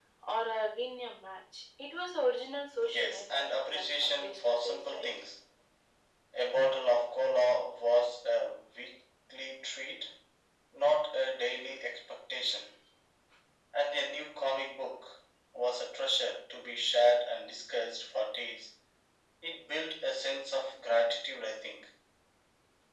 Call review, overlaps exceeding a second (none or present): present